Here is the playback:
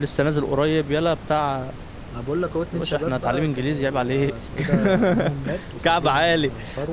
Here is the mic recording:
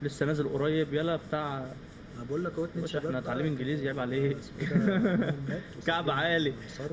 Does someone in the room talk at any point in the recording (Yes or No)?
No